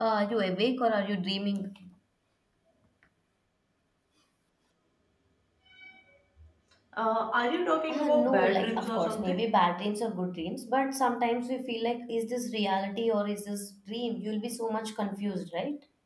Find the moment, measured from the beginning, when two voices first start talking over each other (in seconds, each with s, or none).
7.9 s